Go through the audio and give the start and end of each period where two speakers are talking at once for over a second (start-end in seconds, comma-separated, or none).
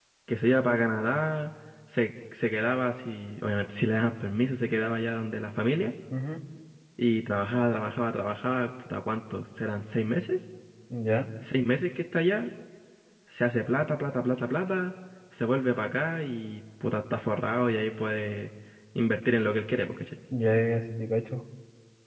none